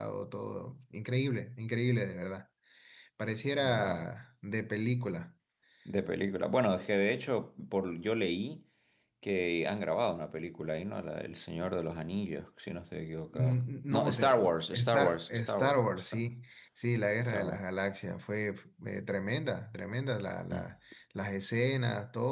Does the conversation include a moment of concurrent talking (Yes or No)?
Yes